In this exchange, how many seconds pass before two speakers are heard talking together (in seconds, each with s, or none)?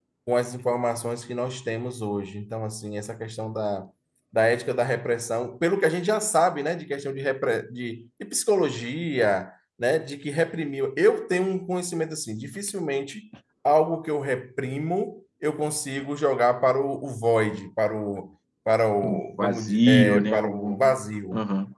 19.0 s